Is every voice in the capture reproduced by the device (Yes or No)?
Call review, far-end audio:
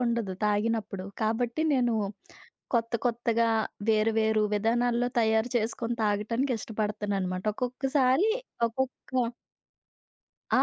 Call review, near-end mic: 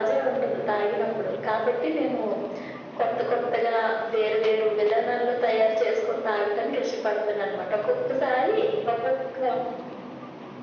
Yes